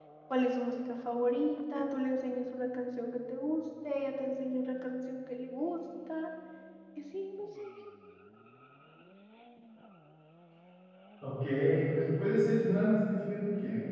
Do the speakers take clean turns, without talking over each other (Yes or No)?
Yes